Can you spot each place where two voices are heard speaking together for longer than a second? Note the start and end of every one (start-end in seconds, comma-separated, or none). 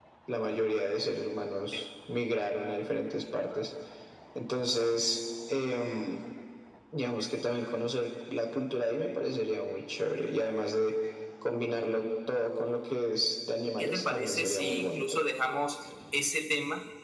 13.8-15.2